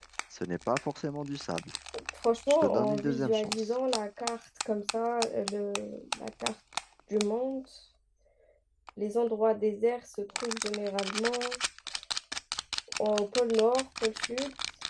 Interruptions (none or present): present